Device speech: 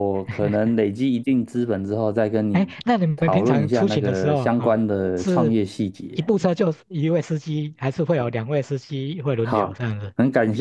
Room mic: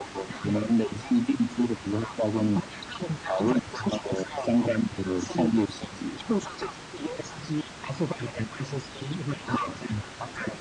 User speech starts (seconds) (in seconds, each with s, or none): none